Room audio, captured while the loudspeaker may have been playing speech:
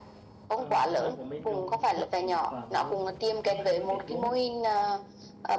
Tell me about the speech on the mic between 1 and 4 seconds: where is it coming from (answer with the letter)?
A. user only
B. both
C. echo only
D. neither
B